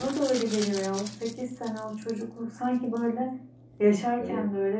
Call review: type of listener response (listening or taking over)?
listening